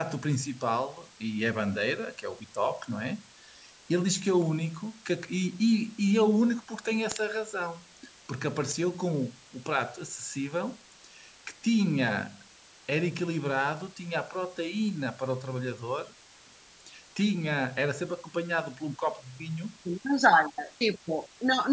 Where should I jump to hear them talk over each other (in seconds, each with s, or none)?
none